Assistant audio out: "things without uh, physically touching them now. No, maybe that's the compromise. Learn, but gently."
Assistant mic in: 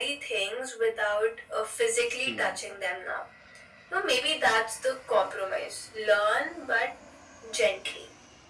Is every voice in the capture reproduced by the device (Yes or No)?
No